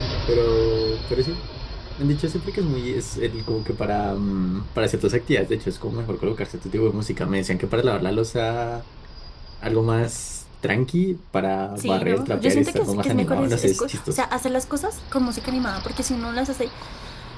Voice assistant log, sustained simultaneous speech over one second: present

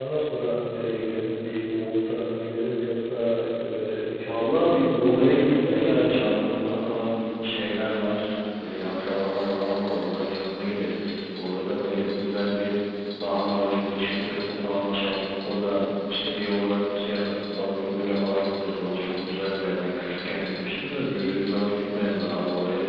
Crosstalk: present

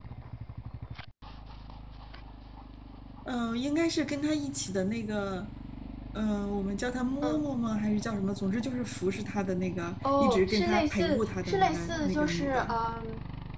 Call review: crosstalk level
present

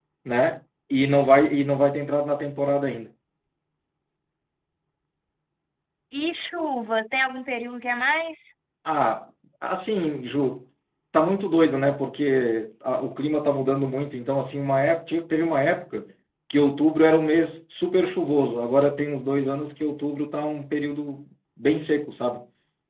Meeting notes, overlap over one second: none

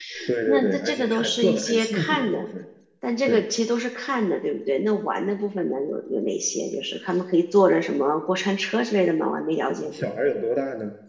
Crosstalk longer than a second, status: present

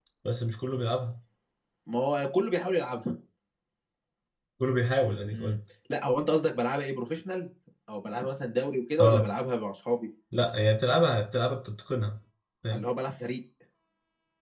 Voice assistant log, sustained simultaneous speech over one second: none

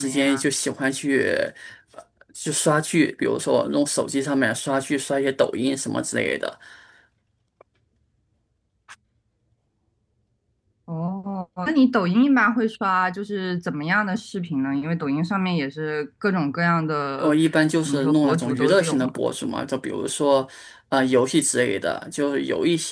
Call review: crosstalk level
present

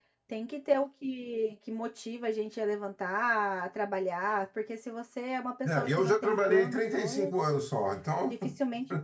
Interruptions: present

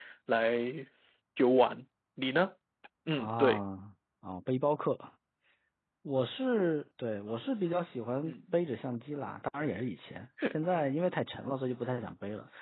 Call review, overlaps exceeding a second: none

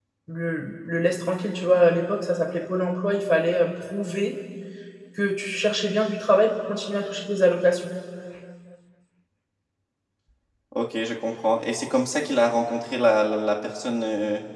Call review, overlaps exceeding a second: none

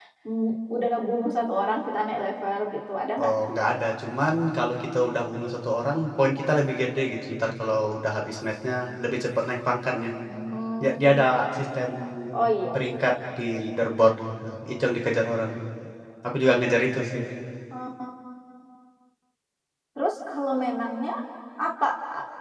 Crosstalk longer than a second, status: none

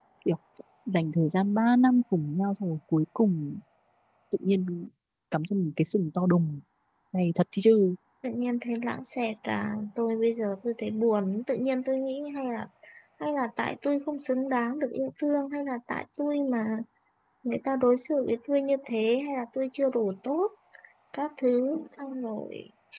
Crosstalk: none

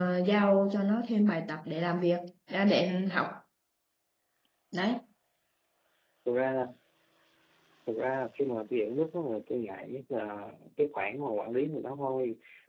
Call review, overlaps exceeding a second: none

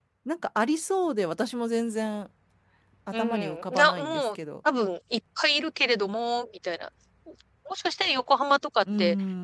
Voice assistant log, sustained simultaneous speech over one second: present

